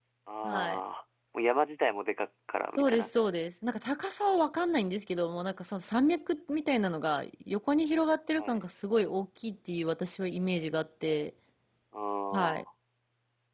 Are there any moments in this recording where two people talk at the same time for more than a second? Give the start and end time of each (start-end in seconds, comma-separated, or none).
none